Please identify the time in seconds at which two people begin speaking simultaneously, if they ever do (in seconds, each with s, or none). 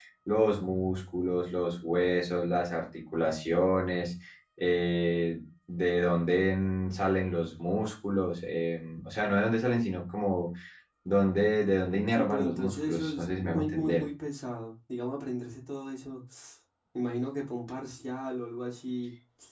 12.1 s